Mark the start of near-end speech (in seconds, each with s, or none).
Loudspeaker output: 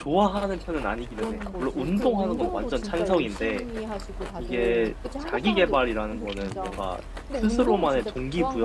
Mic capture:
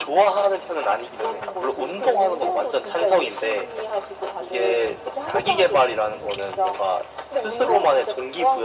none